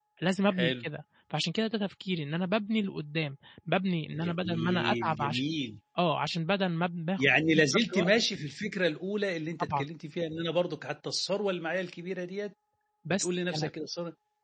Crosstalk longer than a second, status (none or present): present